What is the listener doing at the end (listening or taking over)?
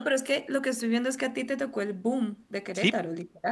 taking over